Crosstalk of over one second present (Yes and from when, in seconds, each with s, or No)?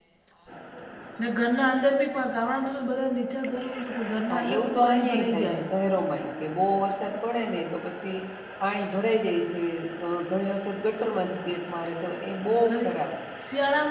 Yes, from 4.3 s